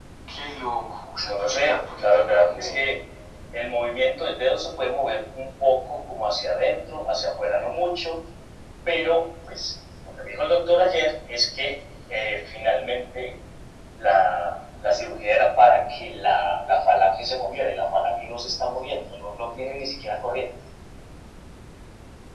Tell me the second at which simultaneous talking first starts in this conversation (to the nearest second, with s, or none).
1 s